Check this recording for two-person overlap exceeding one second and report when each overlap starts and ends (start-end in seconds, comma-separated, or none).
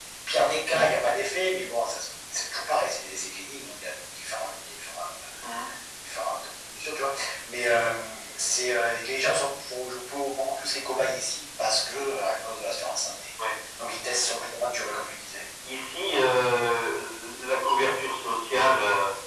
none